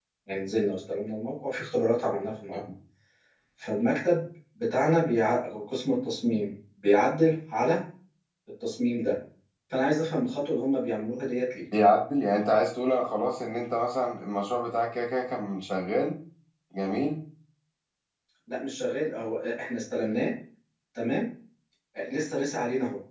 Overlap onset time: none

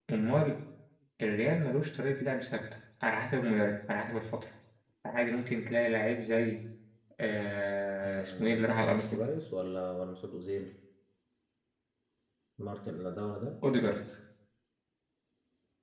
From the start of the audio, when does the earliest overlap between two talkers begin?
8.0 s

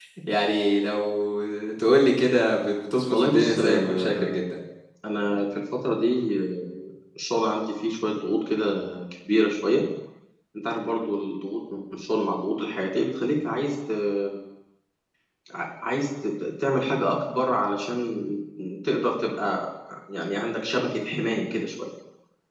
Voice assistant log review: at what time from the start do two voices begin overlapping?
3.1 s

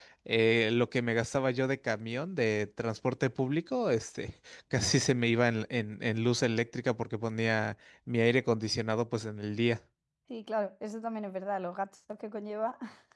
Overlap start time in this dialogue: none

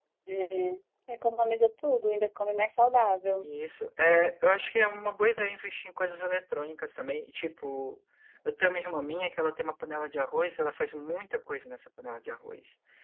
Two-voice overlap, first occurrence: none

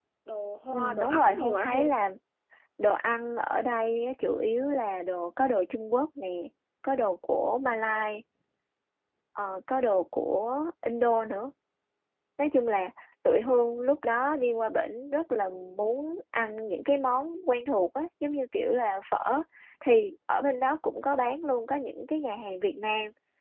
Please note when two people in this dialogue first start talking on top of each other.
0.7 s

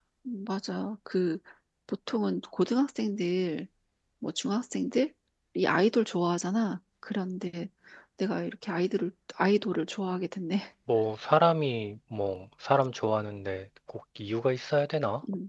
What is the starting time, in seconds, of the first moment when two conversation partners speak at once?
none

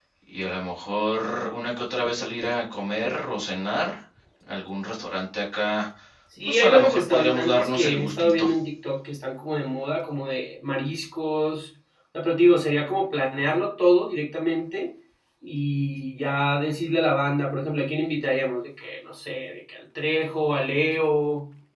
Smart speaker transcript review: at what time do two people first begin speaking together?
6.5 s

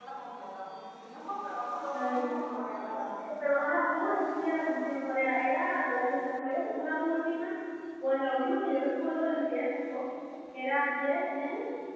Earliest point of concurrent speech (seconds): 1.9 s

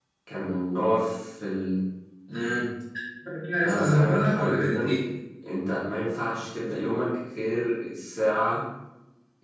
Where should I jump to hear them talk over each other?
3.6 s

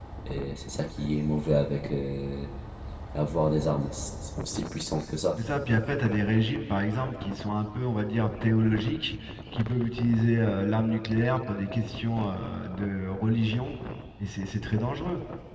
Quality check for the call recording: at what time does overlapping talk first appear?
none

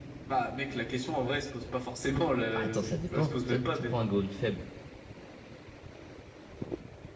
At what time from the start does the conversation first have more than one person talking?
2.5 s

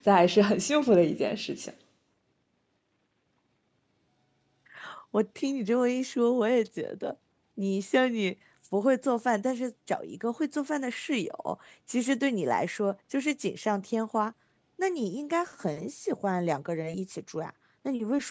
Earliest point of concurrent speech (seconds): none

